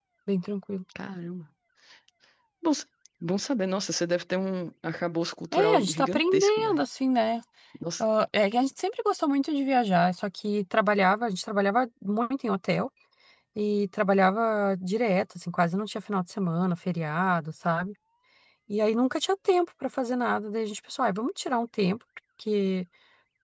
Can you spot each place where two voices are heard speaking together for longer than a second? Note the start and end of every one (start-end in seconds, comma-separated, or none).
5.5-6.8